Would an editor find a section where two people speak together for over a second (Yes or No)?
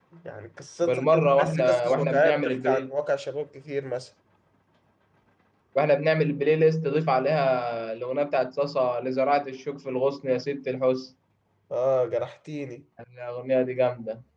Yes